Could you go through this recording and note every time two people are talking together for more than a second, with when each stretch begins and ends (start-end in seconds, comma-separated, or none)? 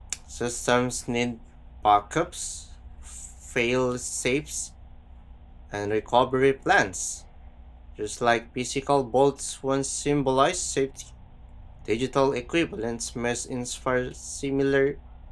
none